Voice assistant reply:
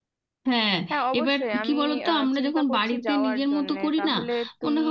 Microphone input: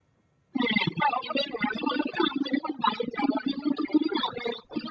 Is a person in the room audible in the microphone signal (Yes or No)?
No